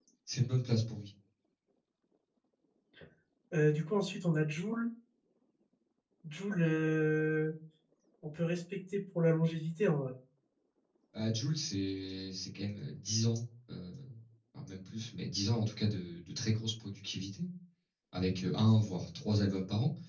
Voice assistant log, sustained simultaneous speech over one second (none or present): none